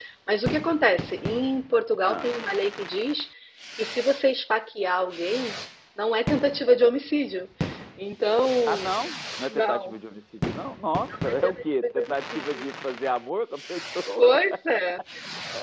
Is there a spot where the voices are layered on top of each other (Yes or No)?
Yes